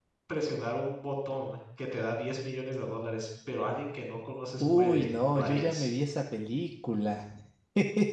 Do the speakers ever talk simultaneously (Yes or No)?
Yes